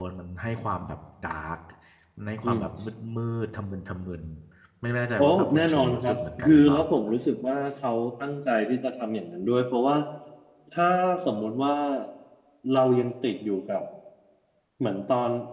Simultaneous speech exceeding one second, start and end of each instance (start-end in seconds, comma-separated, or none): 5.2-6.8